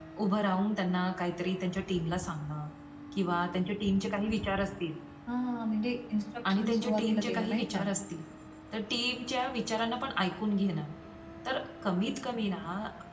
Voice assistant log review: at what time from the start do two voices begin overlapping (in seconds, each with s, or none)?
6.5 s